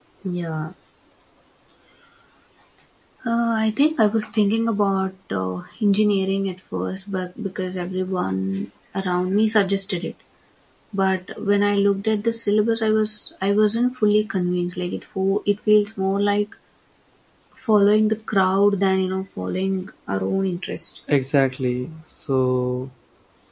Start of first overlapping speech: none

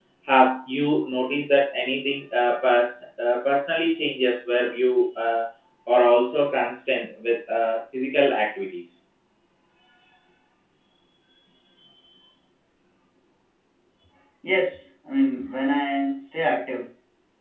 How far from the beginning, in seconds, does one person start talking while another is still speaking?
none

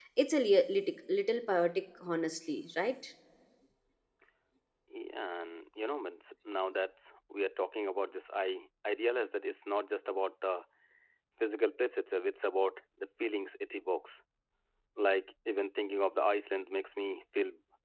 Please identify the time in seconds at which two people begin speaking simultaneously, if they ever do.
none

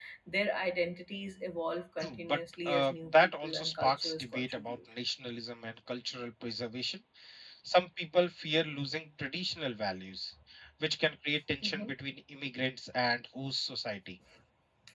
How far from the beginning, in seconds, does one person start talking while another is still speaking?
2.0 s

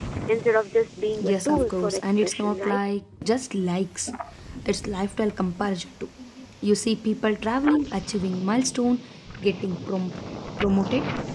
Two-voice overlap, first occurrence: 1.2 s

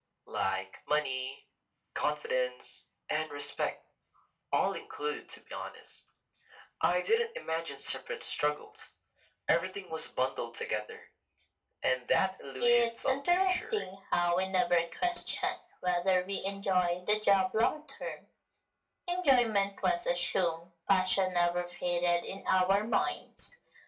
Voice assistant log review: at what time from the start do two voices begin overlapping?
12.6 s

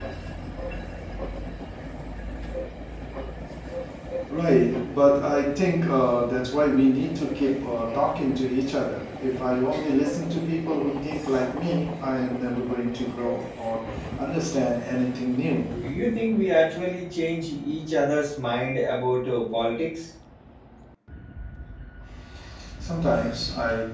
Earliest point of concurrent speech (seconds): none

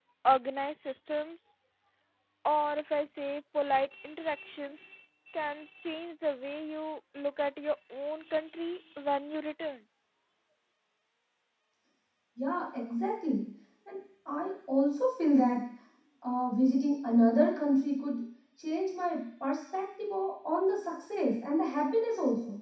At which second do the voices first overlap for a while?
none

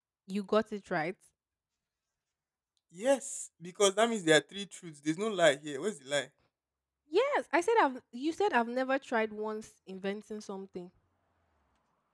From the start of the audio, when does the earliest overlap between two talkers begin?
none

